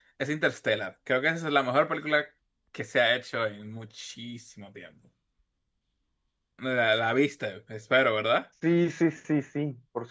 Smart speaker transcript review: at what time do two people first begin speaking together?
none

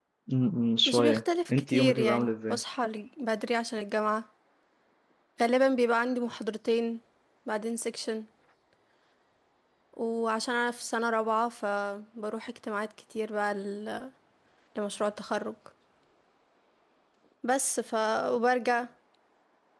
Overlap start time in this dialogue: 0.9 s

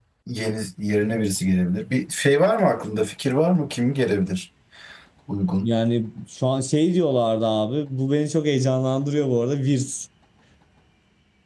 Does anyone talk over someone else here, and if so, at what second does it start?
none

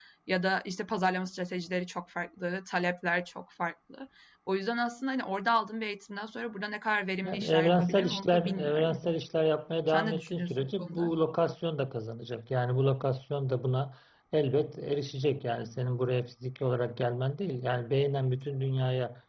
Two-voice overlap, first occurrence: 7.2 s

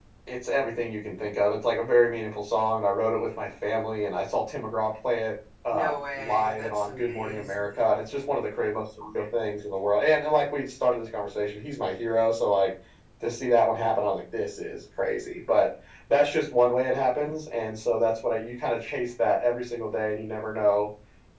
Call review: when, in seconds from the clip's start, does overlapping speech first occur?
5.7 s

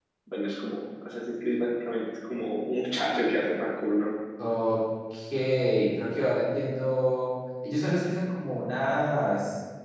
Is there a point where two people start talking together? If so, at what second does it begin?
none

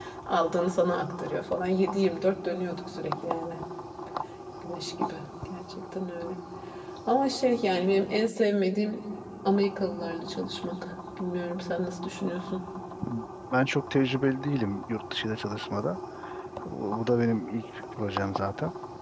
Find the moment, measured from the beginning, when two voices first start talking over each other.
none

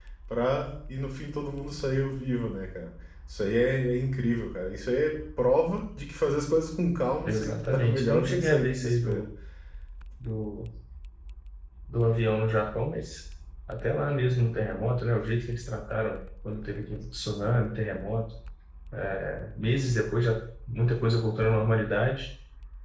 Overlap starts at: 7.2 s

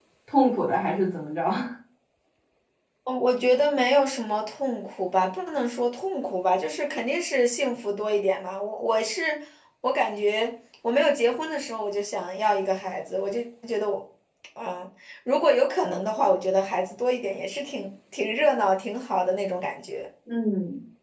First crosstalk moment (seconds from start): none

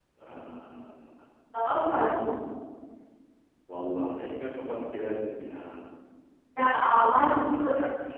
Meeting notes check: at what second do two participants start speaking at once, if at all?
none

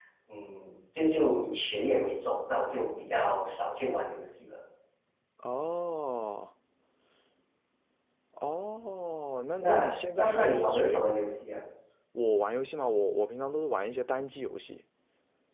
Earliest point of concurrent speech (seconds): 9.6 s

